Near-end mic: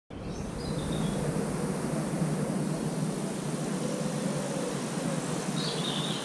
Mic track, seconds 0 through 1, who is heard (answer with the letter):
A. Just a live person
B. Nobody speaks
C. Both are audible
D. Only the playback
B